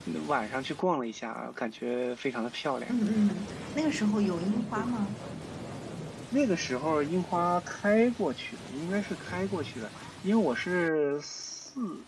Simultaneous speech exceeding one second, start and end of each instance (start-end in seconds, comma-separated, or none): none